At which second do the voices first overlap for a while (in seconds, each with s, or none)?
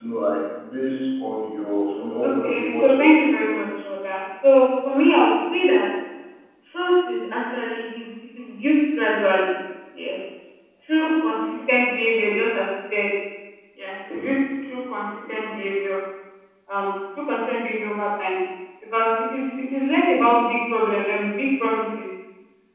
2.2 s